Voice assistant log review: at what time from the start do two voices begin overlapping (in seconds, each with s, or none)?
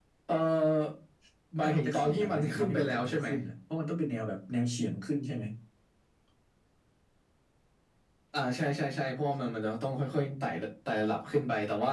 1.6 s